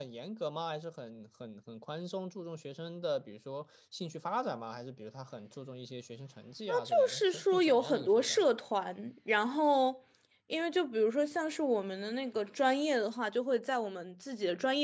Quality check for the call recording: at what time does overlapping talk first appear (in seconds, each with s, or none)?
6.7 s